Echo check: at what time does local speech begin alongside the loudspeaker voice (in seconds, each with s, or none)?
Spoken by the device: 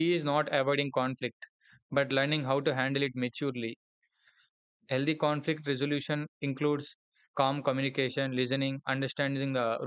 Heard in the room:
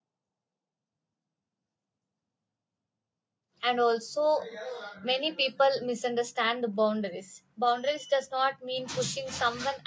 3.6 s